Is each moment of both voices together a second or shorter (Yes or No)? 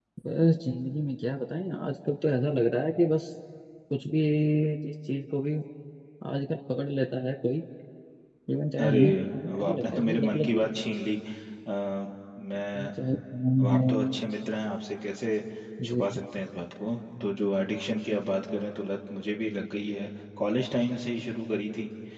No